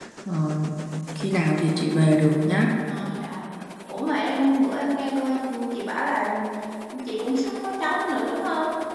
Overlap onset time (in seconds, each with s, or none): none